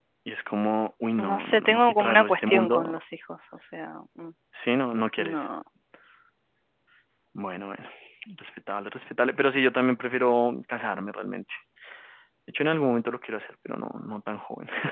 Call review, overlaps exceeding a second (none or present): present